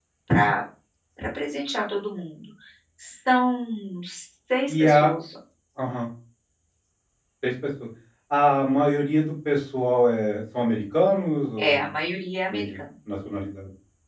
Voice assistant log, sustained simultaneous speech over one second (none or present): none